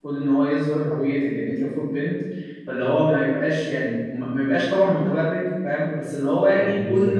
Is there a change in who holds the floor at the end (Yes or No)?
No